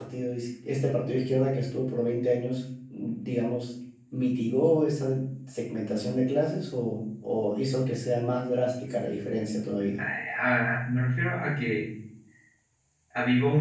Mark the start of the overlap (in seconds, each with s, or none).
none